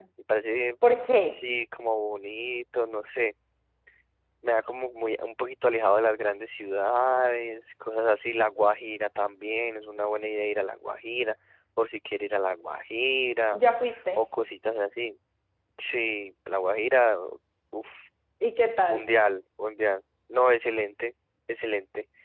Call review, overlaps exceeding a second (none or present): none